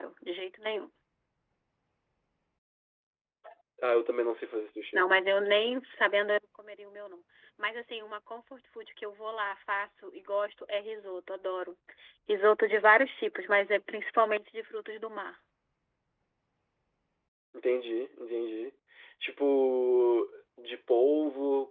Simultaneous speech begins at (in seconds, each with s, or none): none